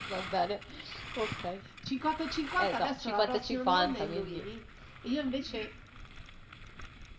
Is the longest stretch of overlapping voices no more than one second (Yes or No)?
No